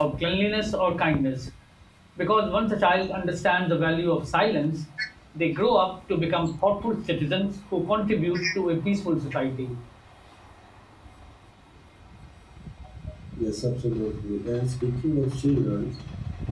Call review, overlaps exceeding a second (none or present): none